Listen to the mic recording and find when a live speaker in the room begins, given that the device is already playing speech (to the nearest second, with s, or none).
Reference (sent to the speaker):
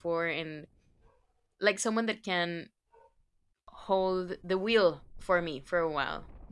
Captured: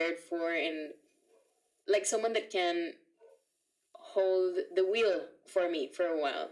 none